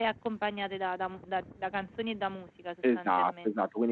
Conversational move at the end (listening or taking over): taking over